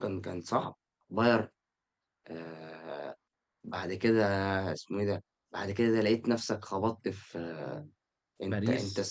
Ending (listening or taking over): listening